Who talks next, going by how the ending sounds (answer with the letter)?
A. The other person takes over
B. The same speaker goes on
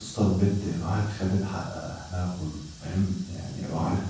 B